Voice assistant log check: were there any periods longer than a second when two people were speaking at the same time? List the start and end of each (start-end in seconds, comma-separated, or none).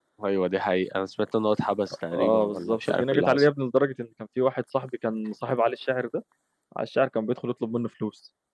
2.1-3.4